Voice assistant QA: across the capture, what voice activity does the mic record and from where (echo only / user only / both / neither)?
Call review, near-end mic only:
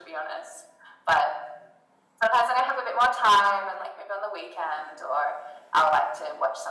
echo only